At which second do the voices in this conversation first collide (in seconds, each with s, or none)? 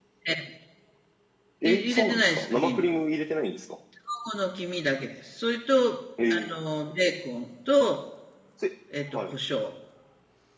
1.6 s